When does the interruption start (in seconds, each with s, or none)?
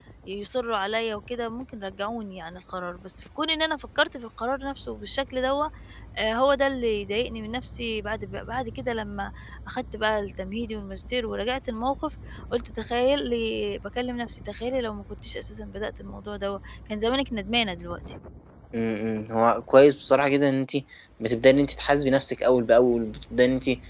none